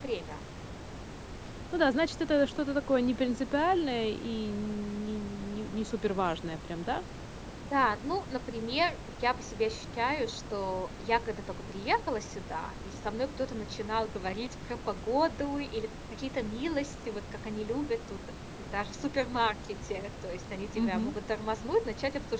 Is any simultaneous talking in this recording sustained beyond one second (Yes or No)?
No